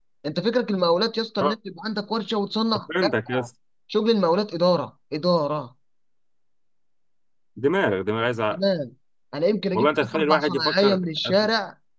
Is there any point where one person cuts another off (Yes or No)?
Yes